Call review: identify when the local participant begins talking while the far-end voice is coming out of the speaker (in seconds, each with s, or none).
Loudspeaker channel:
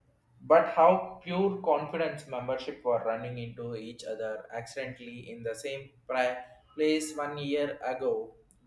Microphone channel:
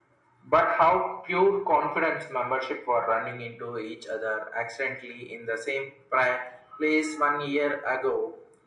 none